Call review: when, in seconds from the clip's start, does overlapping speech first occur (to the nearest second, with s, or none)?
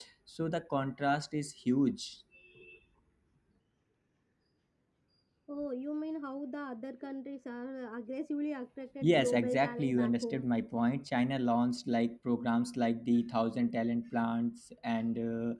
9 s